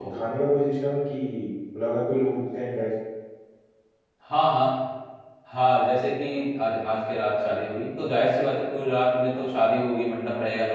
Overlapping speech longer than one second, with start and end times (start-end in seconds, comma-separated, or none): none